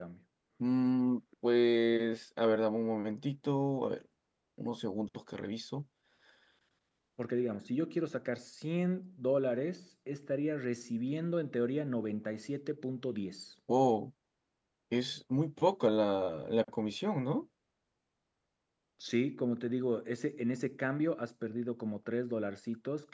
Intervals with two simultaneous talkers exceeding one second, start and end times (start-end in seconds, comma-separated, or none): none